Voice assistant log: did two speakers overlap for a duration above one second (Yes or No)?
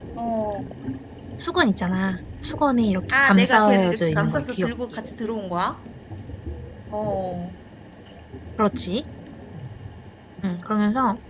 Yes